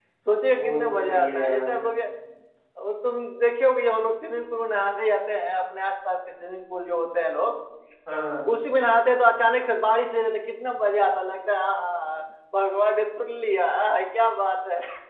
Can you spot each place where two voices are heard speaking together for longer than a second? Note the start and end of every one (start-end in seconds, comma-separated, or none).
0.6-1.8